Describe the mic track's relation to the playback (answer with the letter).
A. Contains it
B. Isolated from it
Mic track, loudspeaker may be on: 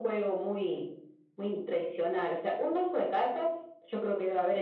A